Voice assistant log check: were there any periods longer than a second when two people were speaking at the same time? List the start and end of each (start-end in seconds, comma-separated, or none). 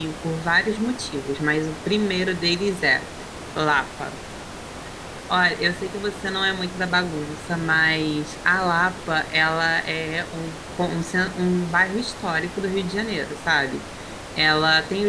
none